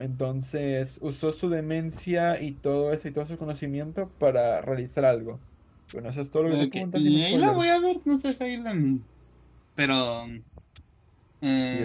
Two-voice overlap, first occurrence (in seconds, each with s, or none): 6.5 s